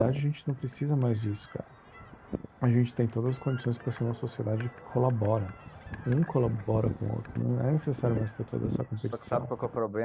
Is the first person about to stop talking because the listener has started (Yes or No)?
Yes